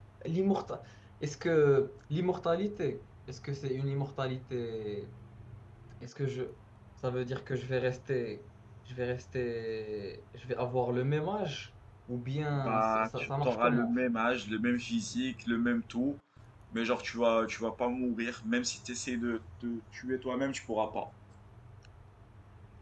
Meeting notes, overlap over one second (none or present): present